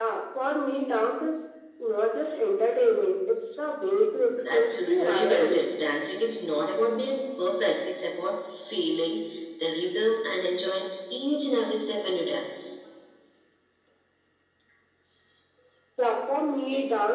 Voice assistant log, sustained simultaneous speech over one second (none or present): present